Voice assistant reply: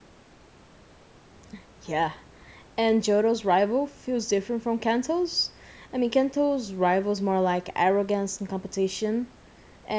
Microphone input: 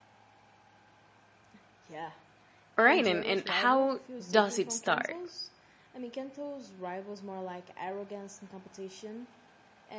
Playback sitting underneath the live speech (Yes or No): Yes